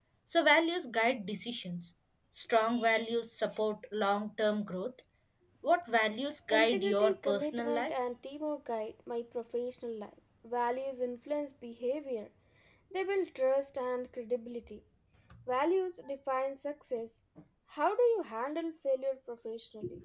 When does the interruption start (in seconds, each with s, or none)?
6.5 s